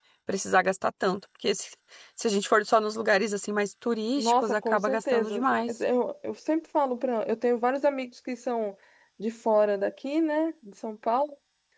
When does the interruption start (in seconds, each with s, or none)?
4.2 s